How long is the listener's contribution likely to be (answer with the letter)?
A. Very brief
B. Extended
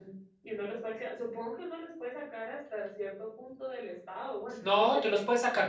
B